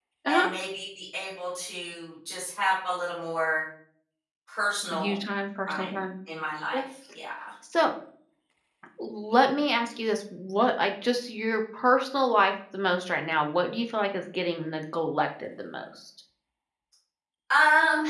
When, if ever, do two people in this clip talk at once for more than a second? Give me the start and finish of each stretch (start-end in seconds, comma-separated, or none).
none